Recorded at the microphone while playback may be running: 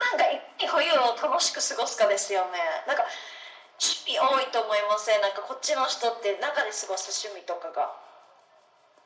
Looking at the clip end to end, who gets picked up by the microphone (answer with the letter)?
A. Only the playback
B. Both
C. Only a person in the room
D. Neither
A